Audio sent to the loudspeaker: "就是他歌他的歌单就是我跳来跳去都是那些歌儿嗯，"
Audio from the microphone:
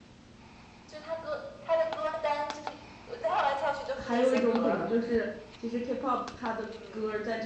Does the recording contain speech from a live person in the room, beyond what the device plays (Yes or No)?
Yes